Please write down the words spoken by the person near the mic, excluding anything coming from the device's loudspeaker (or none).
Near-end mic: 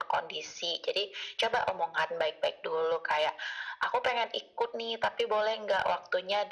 none